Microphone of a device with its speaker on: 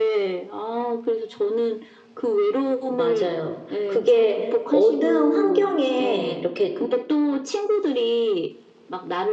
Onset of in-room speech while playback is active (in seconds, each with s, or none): 2.9 s